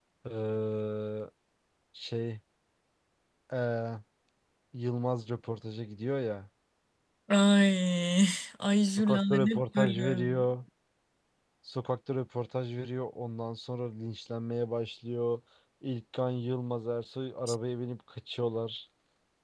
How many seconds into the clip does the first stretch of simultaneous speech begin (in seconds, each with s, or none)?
9.0 s